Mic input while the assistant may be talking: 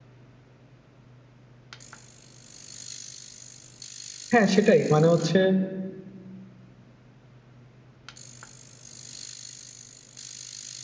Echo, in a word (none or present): none